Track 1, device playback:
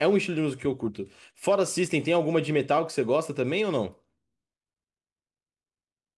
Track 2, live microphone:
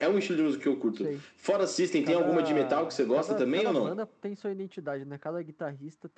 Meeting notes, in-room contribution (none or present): present